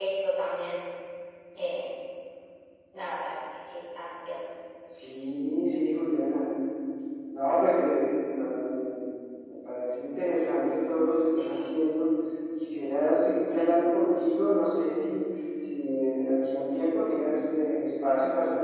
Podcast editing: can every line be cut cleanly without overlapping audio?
Yes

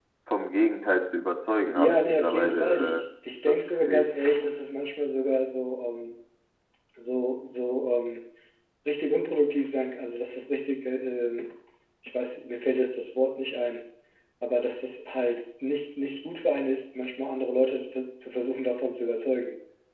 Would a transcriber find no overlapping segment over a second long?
No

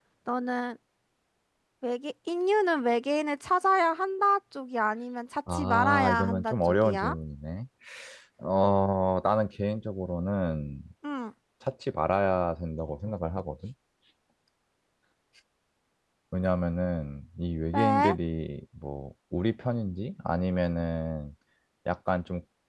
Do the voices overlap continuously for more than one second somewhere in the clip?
Yes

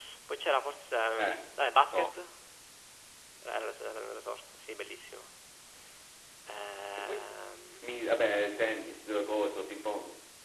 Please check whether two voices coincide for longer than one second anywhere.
No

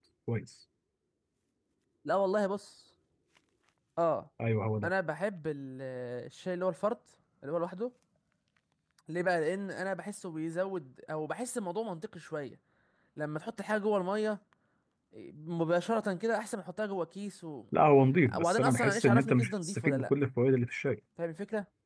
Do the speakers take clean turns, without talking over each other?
No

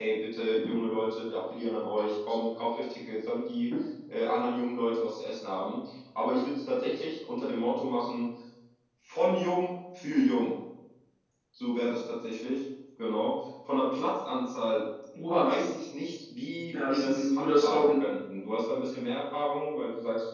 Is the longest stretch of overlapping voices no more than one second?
No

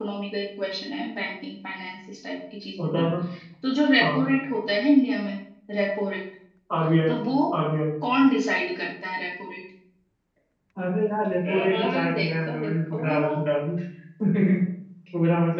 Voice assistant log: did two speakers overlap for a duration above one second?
Yes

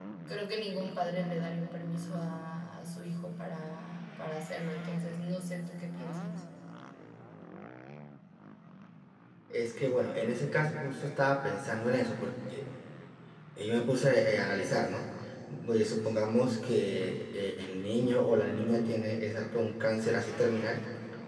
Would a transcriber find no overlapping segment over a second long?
Yes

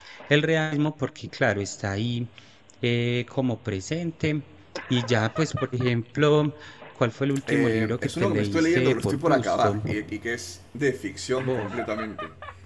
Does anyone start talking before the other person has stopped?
Yes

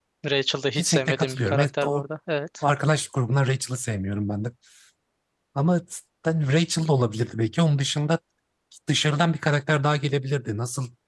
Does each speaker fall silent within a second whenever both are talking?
No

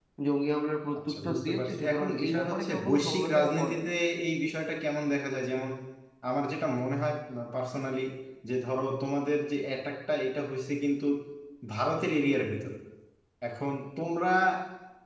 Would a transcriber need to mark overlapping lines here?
Yes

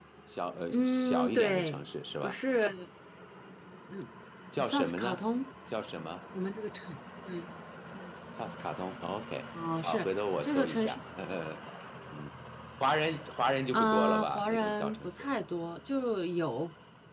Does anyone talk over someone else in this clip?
Yes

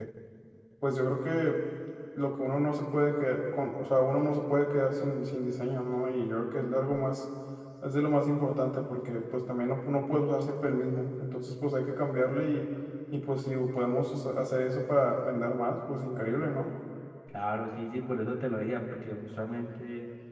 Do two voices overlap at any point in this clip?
No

